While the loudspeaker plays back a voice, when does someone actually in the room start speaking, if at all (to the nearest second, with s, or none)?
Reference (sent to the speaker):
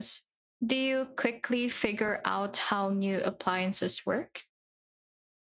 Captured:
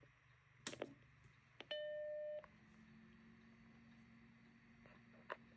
none